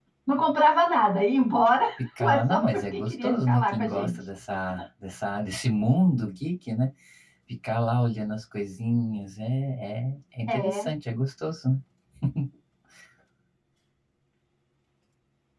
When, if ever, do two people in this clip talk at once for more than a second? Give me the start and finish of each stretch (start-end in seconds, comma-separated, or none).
2.2-4.2